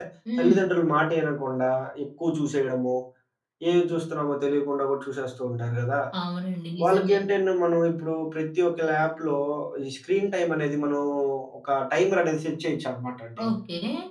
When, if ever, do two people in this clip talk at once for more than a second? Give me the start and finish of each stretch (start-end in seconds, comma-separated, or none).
none